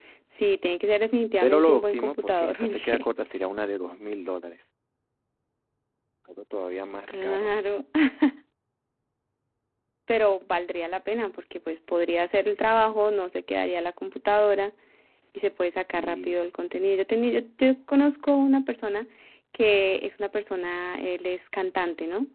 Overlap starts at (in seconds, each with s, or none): 1.4 s